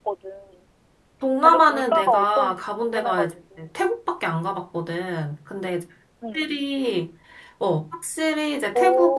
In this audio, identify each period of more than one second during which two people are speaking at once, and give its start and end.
1.4-3.3

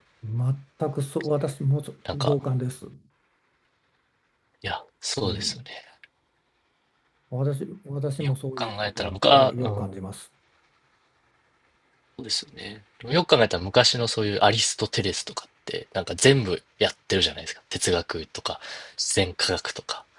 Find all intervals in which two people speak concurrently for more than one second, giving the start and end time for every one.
8.2-10.0

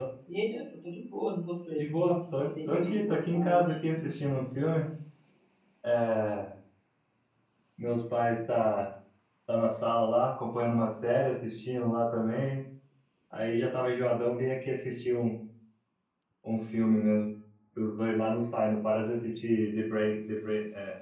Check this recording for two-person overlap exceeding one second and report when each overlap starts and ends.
2.4-3.7

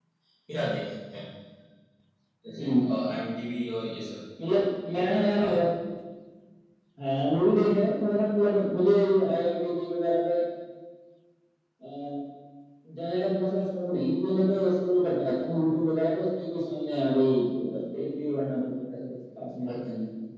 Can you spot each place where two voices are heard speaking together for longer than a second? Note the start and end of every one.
none

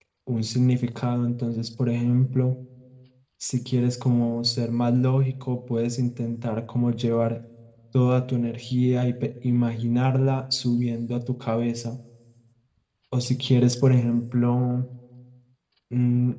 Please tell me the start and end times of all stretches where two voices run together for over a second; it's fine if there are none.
none

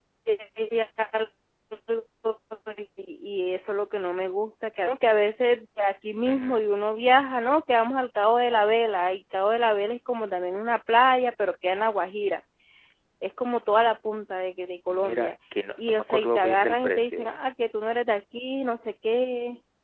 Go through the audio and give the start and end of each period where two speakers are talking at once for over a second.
15.9-17.4

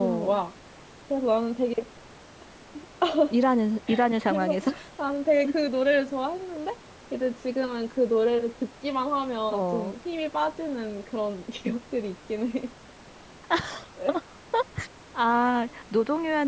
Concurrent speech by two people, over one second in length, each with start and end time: none

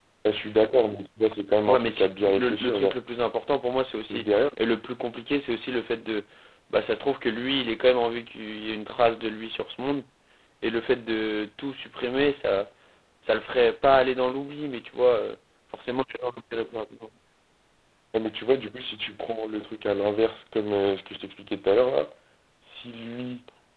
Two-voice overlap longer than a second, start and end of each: 1.6-3.0

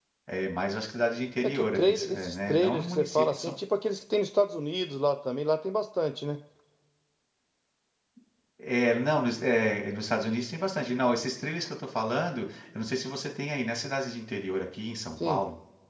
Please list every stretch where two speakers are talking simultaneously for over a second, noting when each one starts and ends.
1.4-3.5

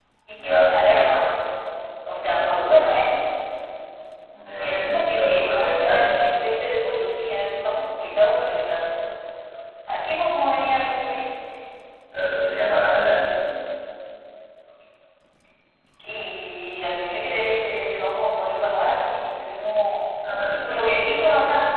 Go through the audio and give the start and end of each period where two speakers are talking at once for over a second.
4.6-6.1

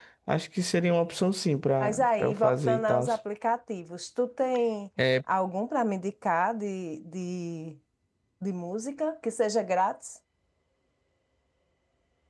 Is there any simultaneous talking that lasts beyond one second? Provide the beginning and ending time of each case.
1.8-3.0

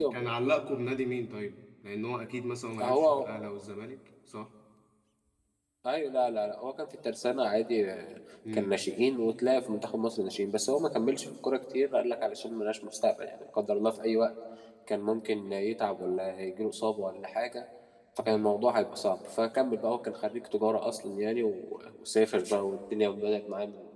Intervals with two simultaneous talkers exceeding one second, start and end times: none

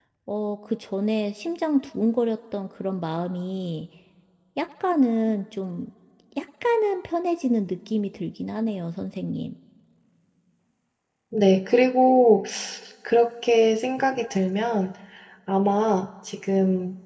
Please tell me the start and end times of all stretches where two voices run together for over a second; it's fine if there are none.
none

